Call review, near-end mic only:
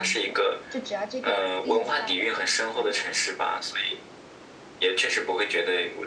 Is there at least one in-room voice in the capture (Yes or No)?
Yes